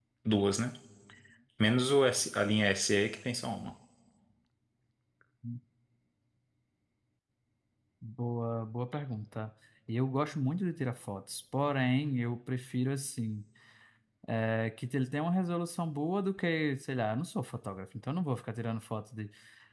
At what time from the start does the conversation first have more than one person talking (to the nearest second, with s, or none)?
none